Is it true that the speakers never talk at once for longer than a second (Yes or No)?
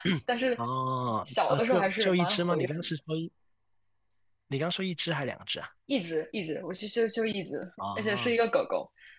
No